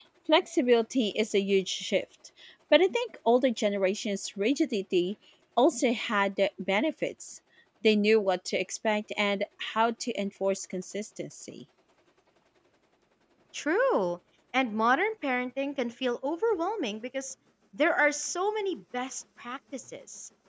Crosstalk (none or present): none